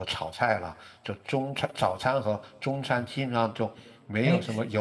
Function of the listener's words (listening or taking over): taking over